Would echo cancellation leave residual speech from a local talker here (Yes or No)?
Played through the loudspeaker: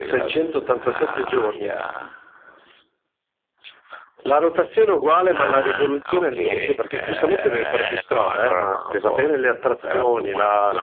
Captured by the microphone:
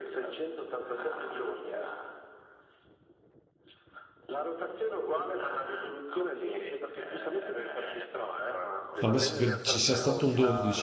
Yes